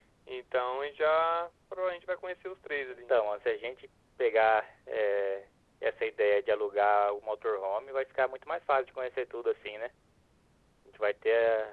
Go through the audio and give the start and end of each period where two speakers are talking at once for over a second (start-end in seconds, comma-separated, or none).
none